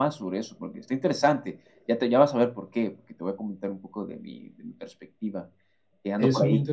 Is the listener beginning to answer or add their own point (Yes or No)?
Yes